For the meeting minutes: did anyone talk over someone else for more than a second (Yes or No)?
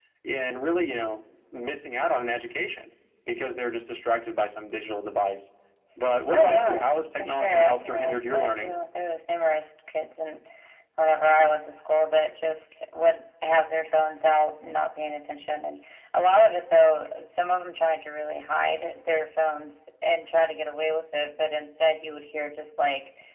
Yes